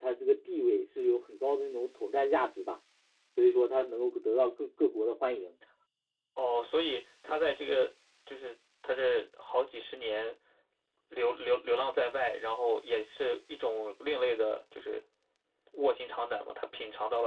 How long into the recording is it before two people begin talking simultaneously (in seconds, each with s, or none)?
none